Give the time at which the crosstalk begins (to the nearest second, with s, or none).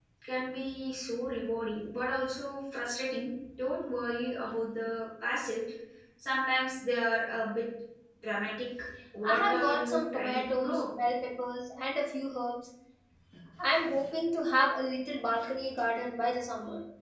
9 s